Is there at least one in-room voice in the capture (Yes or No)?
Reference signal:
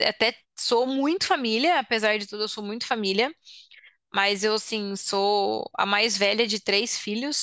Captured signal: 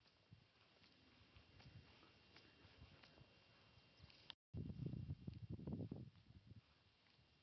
No